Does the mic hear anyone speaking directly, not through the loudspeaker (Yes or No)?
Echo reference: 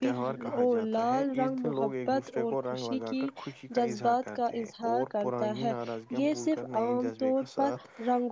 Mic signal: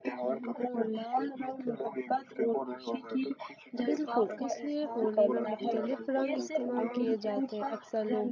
Yes